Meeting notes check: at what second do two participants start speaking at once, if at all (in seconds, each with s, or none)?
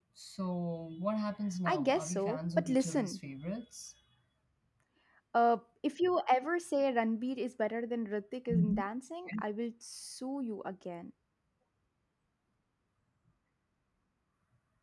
1.7 s